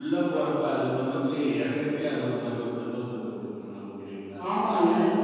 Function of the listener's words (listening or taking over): taking over